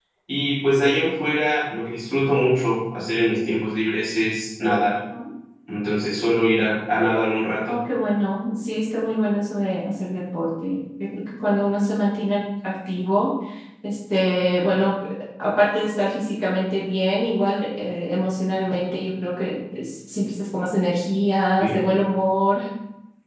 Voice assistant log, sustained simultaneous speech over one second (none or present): none